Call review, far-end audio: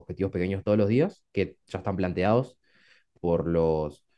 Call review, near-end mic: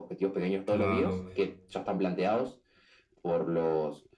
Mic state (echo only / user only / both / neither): both